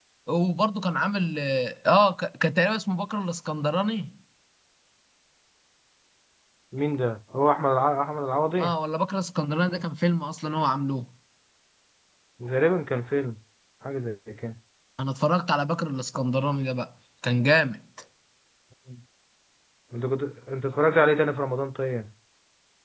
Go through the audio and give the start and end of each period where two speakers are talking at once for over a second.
none

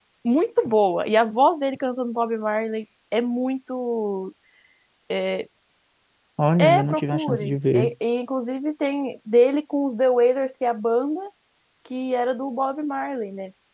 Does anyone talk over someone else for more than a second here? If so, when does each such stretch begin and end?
6.6-7.9

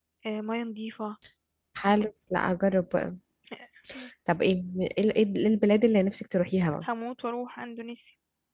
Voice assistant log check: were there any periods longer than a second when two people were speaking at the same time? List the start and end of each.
none

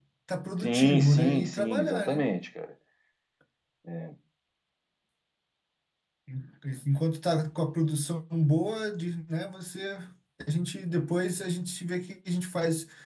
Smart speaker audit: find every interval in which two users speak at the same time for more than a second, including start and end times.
0.6-2.2

